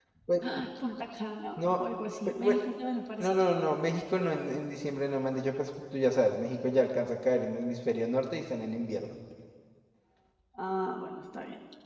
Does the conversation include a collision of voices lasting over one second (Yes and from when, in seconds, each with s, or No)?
No